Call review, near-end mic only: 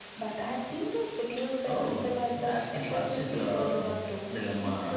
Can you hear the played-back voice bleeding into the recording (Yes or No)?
Yes